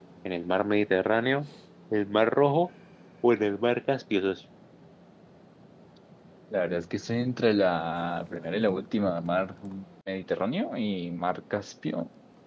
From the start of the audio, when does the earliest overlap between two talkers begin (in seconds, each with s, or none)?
none